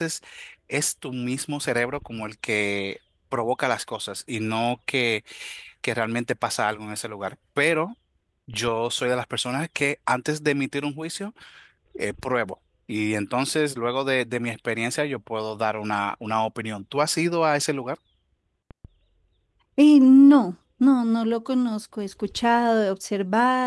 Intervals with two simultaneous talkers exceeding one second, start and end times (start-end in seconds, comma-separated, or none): none